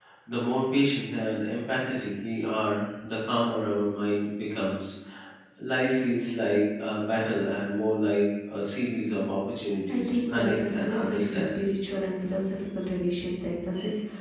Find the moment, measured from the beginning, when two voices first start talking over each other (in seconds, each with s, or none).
9.9 s